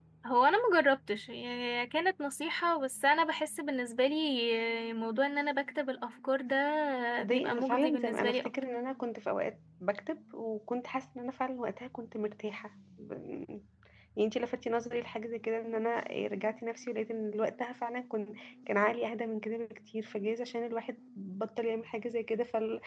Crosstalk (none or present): present